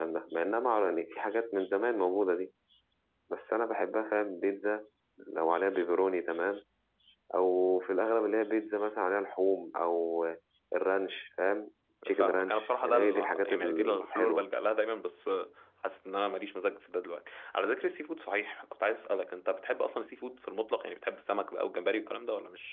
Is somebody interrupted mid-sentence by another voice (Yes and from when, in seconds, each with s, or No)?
Yes, from 12.0 s